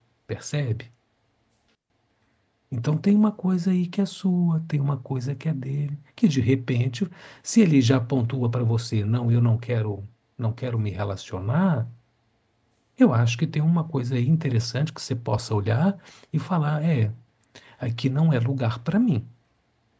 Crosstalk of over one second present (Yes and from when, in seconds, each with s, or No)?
No